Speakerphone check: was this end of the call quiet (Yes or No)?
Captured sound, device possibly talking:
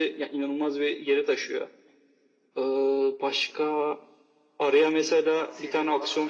No